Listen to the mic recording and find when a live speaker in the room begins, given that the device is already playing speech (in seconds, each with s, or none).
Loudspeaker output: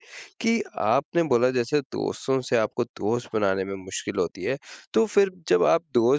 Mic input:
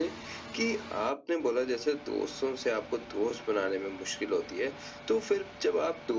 none